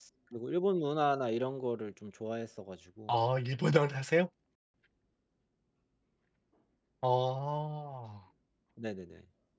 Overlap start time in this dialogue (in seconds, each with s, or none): none